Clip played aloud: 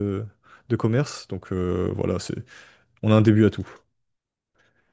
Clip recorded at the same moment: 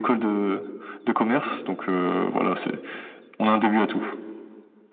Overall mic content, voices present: echo only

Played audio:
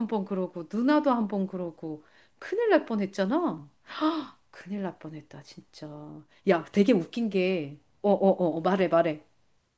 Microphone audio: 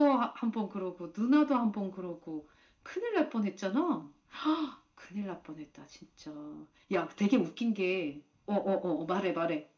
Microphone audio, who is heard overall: echo only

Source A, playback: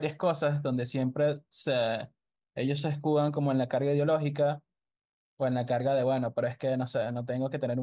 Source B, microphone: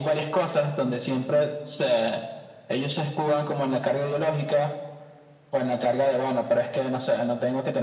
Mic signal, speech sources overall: echo only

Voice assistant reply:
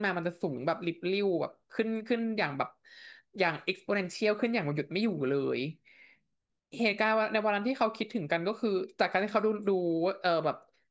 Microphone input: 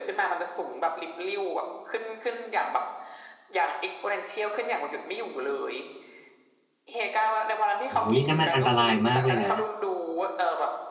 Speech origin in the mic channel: both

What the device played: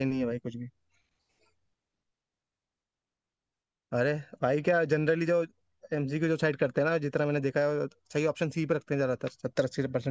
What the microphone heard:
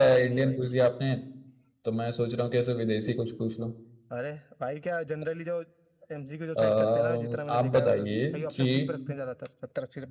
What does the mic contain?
both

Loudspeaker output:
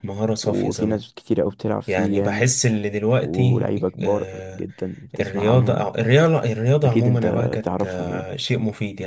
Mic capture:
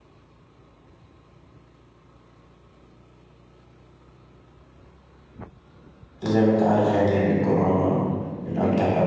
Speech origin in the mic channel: user only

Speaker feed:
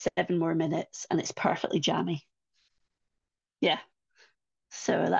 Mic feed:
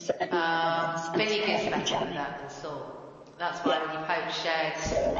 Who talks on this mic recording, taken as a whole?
both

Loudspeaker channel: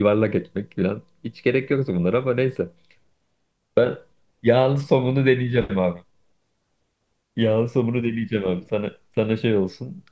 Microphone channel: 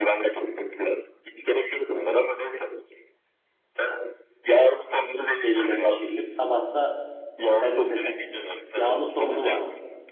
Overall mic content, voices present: both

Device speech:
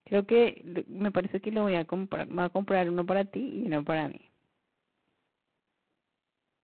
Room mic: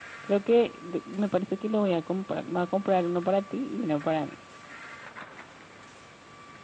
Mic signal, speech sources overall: echo only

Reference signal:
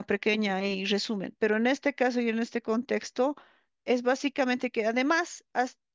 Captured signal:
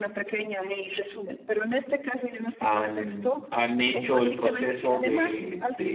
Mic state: both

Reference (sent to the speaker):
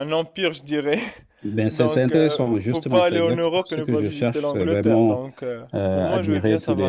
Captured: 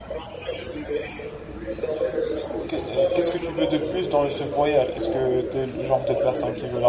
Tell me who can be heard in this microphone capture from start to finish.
both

